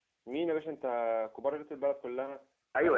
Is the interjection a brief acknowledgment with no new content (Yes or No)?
No